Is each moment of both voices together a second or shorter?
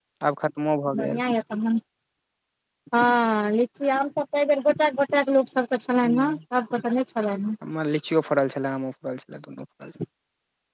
Yes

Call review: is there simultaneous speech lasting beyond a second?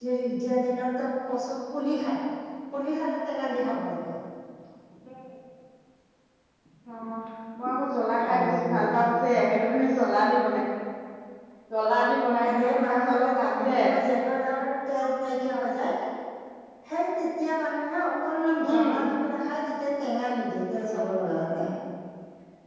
Yes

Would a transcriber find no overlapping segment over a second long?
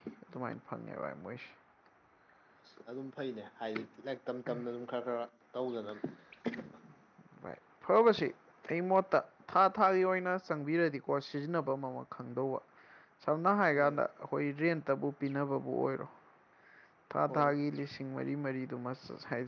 Yes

